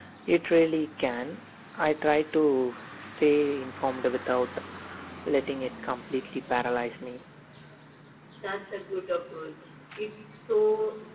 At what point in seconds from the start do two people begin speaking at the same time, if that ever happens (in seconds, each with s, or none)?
none